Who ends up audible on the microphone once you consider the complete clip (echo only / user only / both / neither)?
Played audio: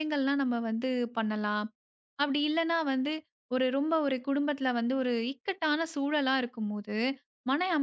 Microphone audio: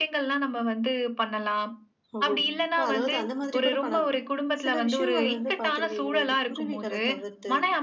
both